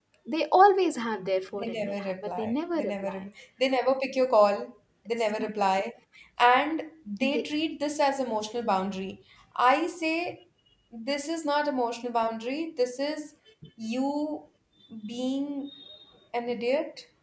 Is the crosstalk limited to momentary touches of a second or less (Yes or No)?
No